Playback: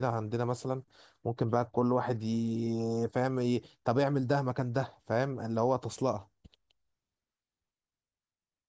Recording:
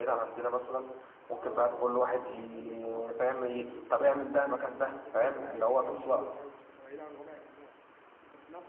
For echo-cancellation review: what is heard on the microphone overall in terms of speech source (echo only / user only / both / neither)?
both